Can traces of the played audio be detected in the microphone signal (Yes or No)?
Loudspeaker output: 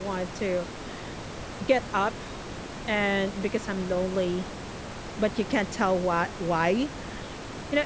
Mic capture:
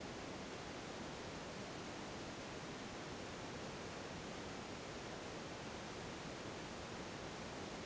No